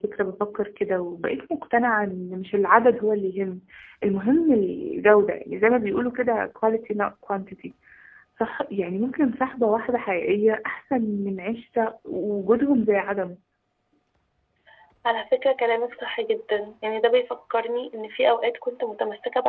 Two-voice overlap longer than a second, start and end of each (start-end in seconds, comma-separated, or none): none